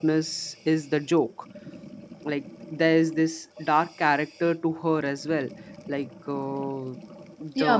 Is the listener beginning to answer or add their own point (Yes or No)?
Yes